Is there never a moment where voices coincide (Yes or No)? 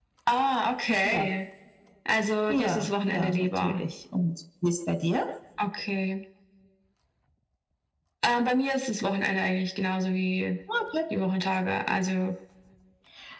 No